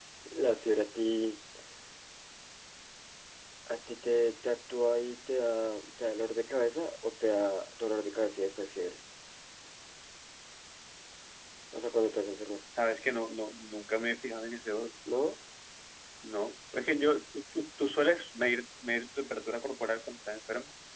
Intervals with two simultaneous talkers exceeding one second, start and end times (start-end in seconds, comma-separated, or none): none